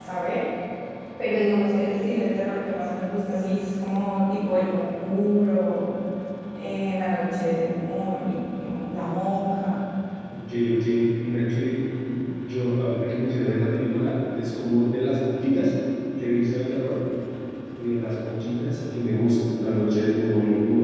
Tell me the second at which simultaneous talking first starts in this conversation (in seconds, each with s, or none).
none